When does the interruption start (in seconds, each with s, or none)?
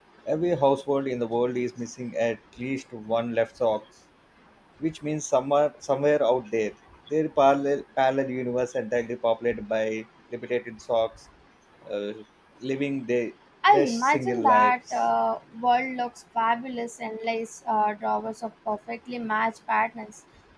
13.7 s